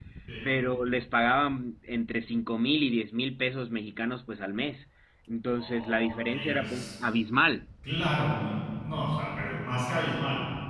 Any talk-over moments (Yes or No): Yes